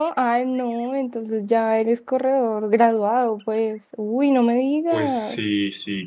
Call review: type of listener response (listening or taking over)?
taking over